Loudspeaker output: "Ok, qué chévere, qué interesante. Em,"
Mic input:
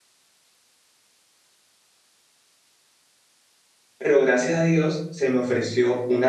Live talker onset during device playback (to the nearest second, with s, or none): 4 s